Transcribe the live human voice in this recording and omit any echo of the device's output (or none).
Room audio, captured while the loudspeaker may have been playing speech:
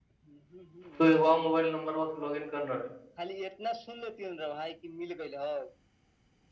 تو ایک وہ موبائل نمبر و لوگن کرنا ہے